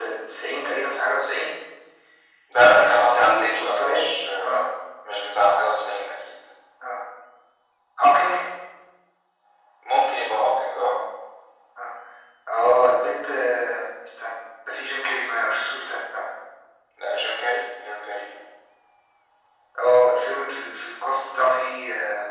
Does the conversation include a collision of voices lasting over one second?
Yes, from 2.6 s

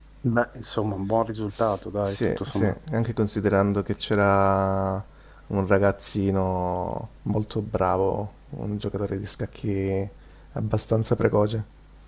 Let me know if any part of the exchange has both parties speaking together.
Yes, from 1.5 s

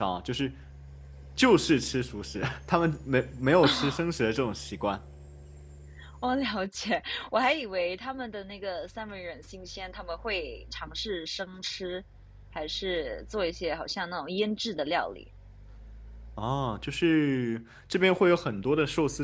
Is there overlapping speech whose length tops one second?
No

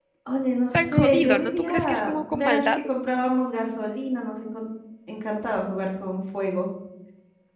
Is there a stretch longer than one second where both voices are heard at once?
Yes, from 0.7 s

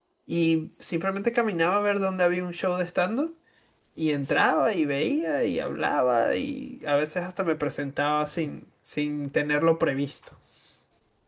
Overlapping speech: No

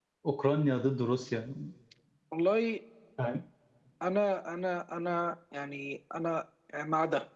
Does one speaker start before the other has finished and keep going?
No

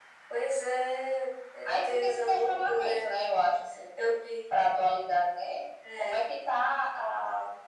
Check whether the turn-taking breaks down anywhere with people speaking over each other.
Yes, from 1.6 s

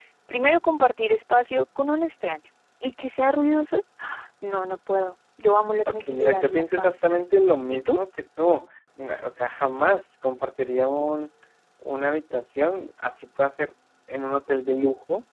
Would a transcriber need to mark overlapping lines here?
Yes, from 5.9 s

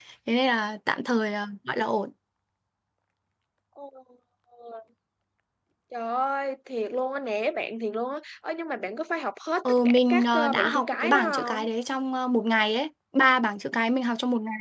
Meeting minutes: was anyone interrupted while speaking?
Yes, from 9.7 s

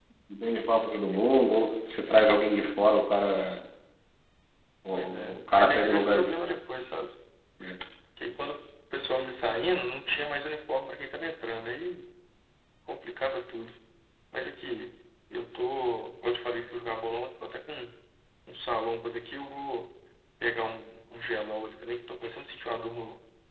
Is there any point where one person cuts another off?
Yes, from 4.9 s

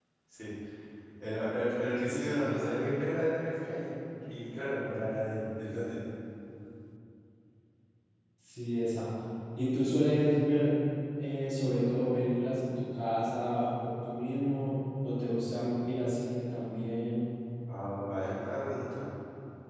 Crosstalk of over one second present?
No

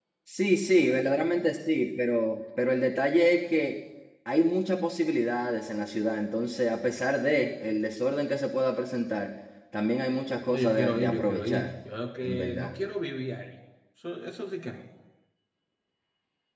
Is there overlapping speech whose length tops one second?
Yes, from 10.5 s

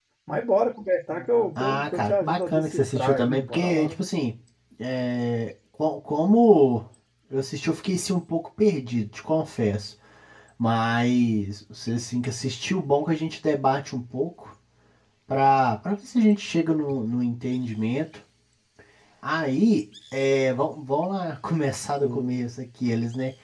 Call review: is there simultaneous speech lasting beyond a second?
Yes, from 1.6 s

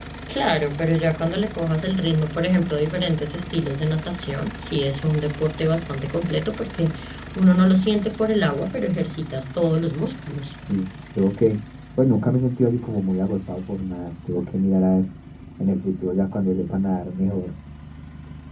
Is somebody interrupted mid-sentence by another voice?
No

